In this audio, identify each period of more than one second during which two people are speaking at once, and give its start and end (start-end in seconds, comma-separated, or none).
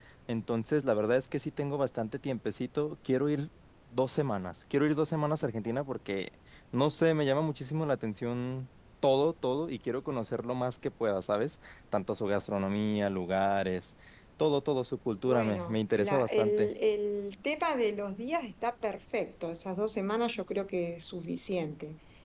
15.3-16.7